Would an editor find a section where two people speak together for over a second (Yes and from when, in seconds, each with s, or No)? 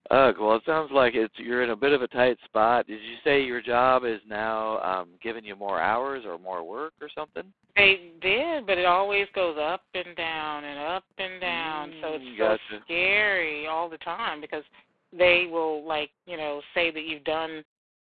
Yes, from 11.5 s